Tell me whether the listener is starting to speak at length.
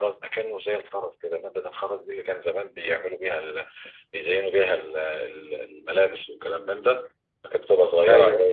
No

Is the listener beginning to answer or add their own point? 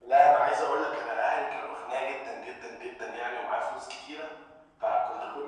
No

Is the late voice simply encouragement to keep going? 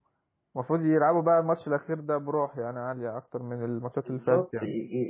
No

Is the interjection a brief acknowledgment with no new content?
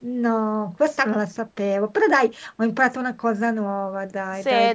No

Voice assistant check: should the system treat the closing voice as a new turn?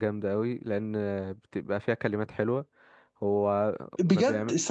Yes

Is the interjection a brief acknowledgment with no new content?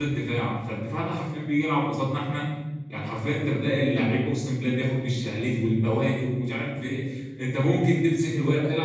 Yes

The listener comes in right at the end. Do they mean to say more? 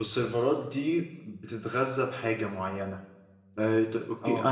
No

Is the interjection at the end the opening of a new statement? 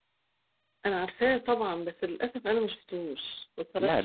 Yes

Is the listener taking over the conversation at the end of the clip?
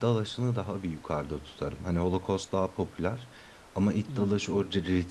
No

